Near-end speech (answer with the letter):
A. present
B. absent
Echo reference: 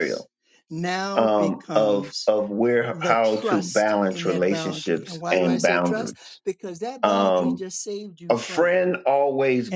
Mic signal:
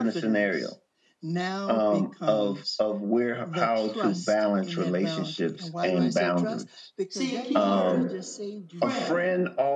A